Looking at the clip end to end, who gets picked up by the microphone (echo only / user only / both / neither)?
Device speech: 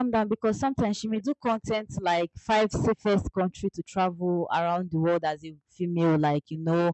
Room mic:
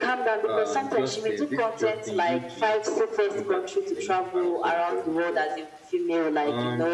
both